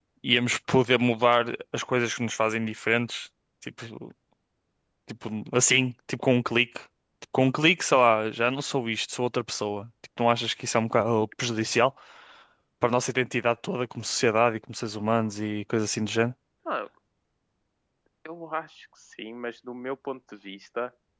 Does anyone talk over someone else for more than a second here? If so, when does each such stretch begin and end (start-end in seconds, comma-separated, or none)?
none